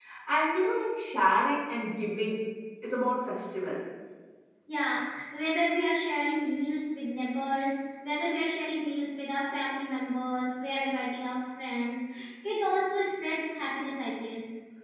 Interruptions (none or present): none